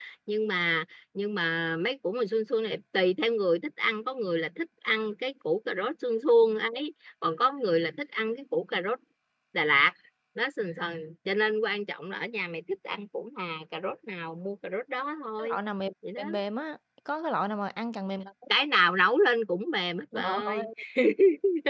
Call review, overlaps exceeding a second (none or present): none